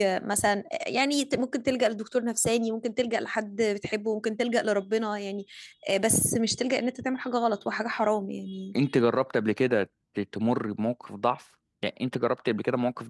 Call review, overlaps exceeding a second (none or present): none